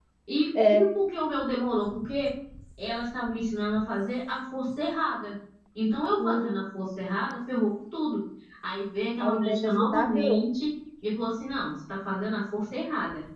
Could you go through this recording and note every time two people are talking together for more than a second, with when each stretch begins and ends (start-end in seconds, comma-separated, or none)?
9.2-10.4